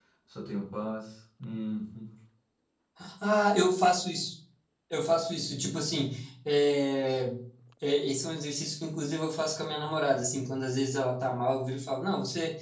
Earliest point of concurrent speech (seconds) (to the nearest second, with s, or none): none